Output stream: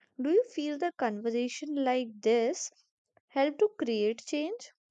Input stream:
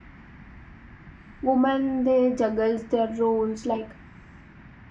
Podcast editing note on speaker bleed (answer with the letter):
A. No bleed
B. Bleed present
A